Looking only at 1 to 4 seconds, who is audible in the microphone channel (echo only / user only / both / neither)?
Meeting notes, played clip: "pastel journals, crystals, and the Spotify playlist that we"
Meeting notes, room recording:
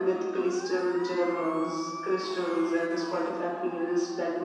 echo only